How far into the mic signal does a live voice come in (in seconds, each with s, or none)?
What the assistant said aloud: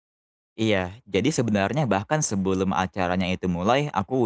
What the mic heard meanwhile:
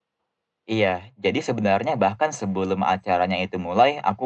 none